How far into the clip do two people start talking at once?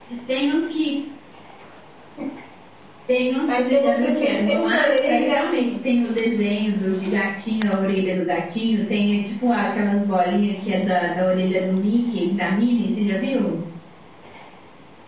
3.5 s

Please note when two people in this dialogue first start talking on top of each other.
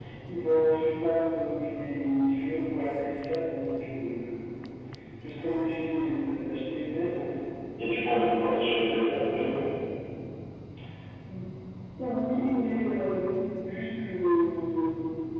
none

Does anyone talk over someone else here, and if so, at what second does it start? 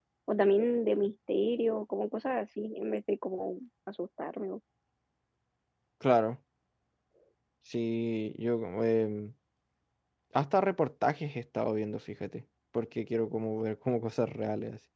none

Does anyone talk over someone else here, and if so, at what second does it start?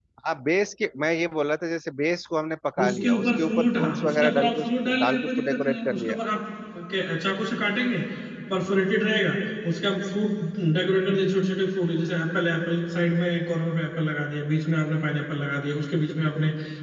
2.8 s

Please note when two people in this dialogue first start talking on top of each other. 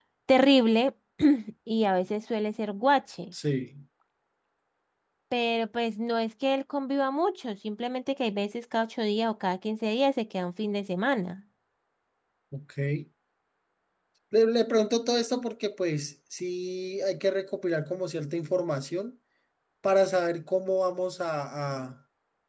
none

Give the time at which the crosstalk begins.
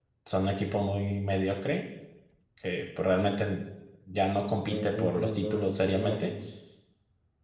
4.7 s

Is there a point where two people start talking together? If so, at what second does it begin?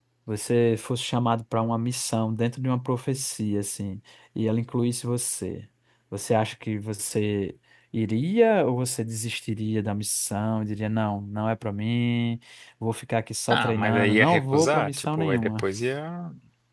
13.5 s

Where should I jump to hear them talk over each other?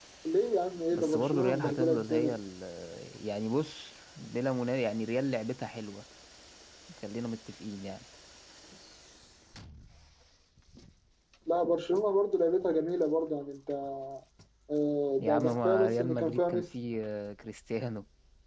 0.9 s

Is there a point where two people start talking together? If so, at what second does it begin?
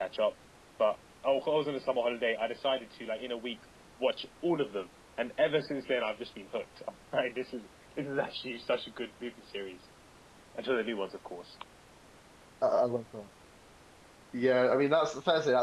none

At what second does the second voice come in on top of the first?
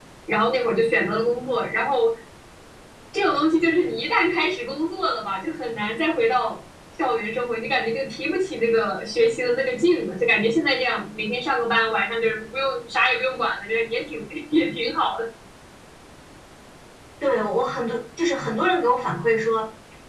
none

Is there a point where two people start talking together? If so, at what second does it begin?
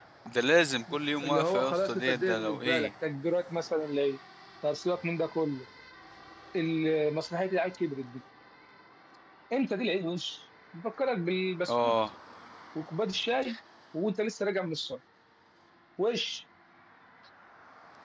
1.2 s

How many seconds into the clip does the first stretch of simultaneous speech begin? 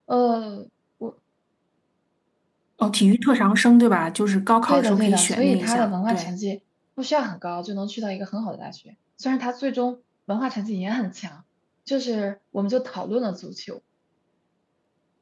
4.7 s

